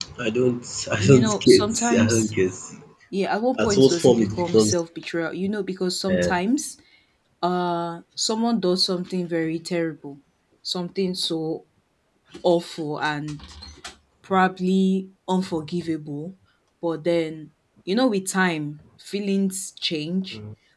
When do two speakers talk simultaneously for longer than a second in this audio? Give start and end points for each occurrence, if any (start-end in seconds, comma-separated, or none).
0.9-2.3, 3.6-4.8